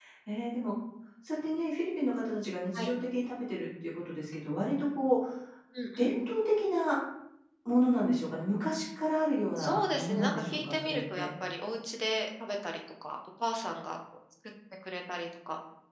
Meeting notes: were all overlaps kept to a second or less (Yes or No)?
No